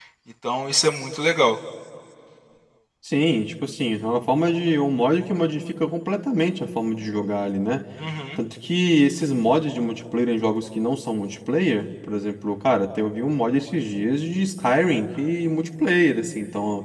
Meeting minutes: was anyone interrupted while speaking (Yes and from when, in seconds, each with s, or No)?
No